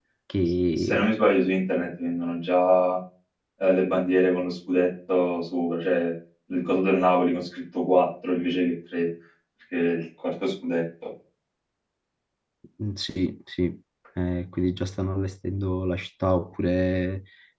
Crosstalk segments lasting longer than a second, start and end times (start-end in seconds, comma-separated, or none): none